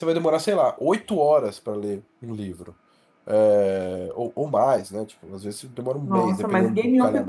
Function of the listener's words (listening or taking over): taking over